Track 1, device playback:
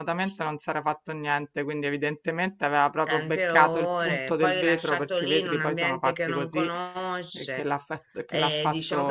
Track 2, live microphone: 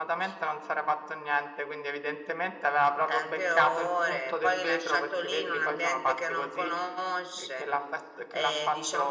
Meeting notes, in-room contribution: none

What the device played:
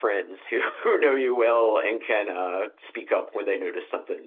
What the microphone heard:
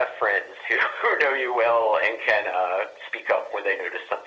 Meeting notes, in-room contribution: none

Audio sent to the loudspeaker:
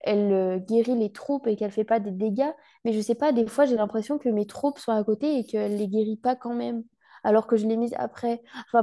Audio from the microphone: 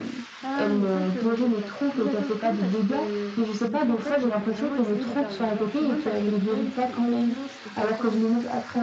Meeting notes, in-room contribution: present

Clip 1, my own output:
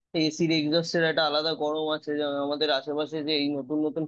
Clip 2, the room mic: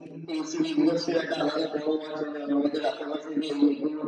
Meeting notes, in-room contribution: none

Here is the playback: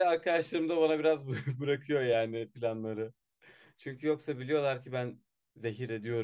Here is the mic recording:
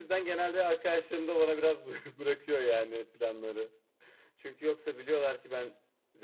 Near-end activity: none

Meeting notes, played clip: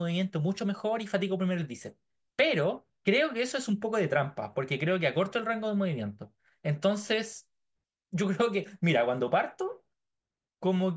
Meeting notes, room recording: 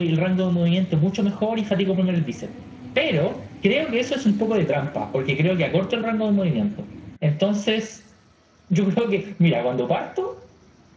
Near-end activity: none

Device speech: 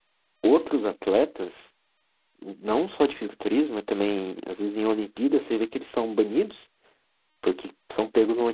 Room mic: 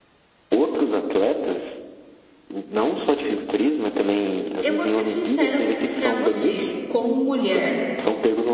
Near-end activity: present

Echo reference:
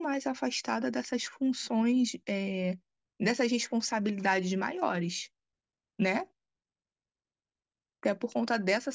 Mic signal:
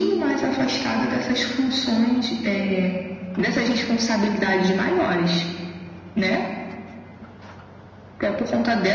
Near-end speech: none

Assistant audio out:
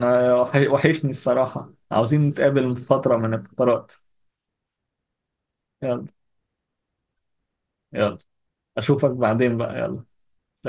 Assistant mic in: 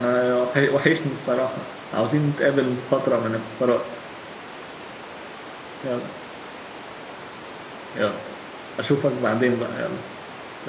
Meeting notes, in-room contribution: none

